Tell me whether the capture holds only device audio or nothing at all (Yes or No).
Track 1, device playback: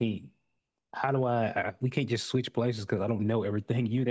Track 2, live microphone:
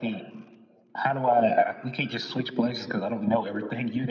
Yes